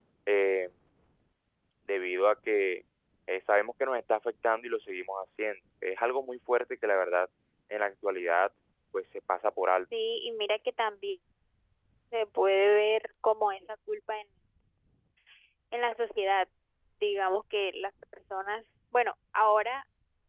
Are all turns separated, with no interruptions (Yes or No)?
Yes